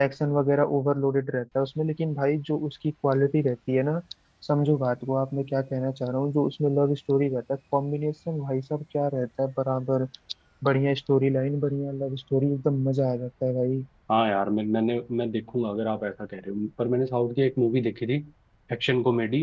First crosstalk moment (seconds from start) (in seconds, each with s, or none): none